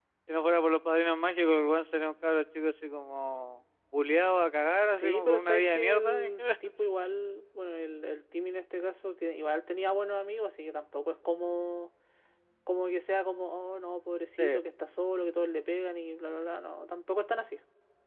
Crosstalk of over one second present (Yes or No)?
Yes